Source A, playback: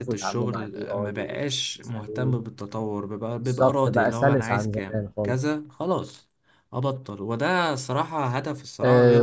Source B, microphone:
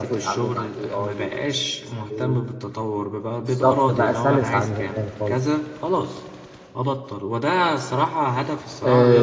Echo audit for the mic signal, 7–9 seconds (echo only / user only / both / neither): echo only